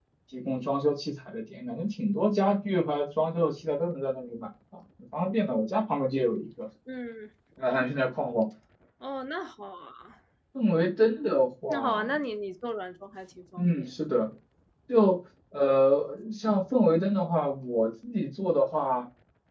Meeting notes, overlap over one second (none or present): none